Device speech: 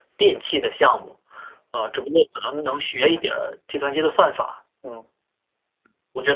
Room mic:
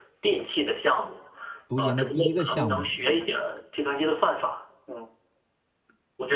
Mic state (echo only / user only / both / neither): both